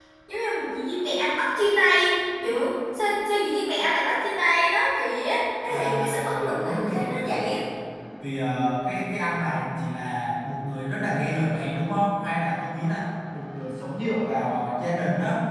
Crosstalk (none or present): present